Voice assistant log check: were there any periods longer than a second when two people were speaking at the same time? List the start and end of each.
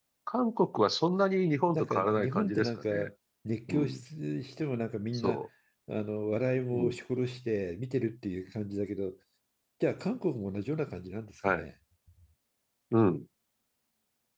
1.7-3.1

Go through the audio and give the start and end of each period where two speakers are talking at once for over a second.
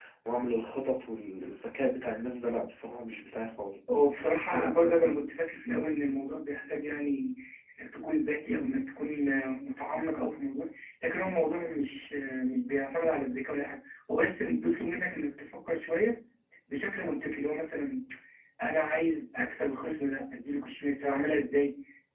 none

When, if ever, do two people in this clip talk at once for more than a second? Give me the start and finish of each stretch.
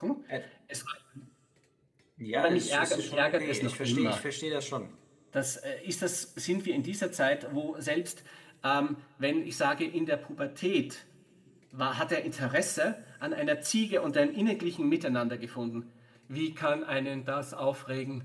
2.4-4.2

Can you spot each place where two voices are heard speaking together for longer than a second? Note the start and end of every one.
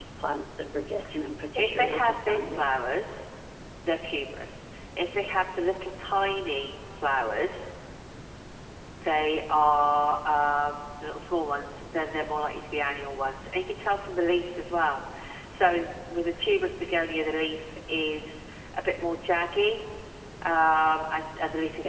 1.6-2.9

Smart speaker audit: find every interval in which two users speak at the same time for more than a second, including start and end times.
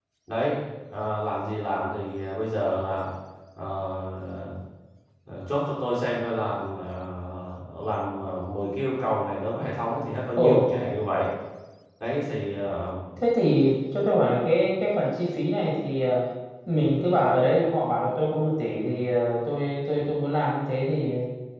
none

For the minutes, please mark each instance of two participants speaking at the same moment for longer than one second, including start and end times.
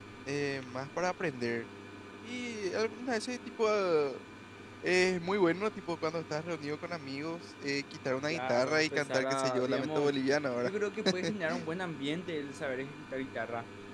8.3-10.1

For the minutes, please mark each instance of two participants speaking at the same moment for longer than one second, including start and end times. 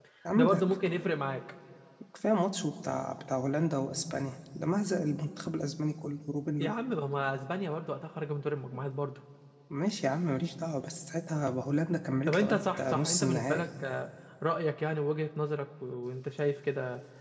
12.3-13.6

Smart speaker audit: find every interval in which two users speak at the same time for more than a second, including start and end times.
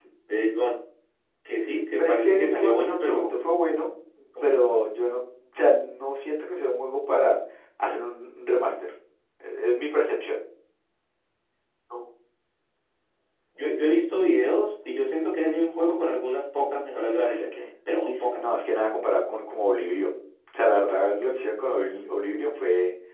2.0-3.3

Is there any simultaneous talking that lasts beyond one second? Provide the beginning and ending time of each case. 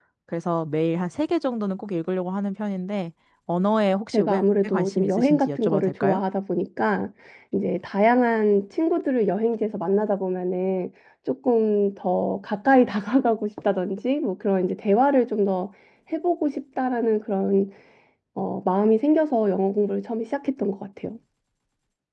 4.1-6.2

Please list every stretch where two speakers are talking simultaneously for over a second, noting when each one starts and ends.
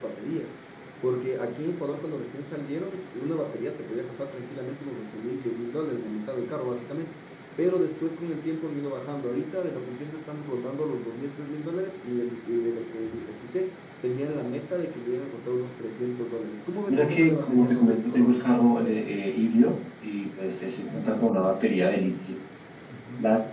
16.9-18.4

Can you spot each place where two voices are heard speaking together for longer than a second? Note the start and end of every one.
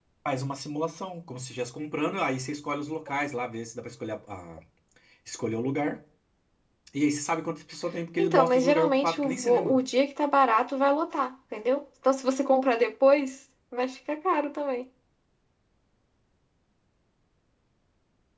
8.2-9.8

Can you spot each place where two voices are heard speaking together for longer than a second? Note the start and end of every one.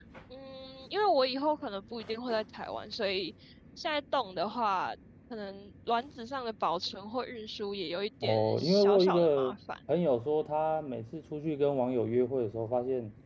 8.2-9.5

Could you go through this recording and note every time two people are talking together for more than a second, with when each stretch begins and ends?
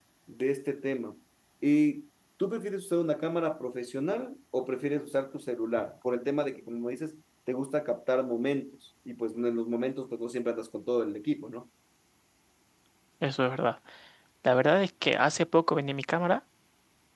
none

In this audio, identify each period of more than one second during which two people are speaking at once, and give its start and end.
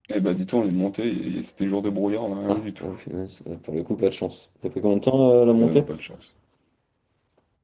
none

